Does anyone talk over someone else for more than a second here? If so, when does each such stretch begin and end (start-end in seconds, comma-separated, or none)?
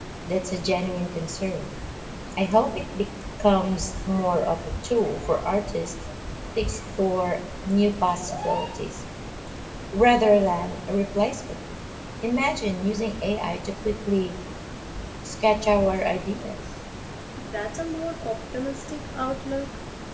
none